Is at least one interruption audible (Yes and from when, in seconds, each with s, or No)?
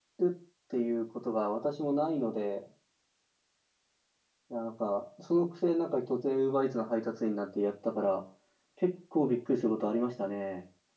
No